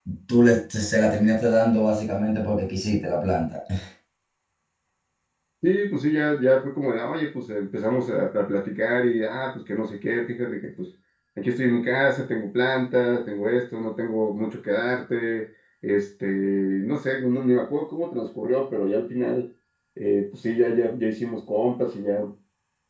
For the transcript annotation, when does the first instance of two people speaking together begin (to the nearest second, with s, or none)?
none